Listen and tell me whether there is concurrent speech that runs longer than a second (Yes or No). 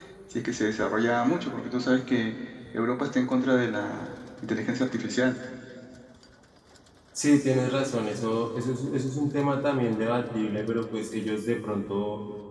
No